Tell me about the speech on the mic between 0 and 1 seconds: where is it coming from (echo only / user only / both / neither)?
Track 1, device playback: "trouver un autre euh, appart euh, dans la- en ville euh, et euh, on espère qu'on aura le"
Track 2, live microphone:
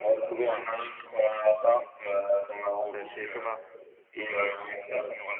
echo only